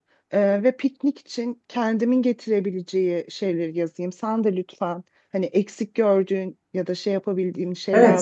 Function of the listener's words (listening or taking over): taking over